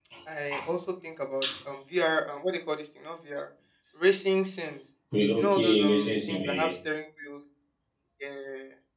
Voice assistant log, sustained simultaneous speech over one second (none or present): present